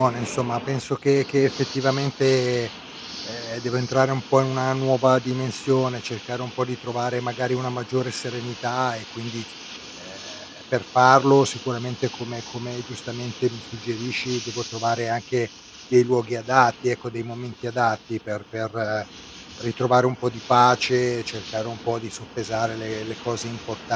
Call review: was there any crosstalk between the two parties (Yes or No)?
No